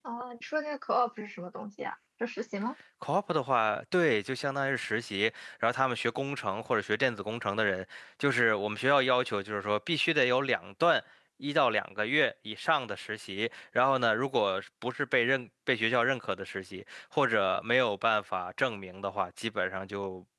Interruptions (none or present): none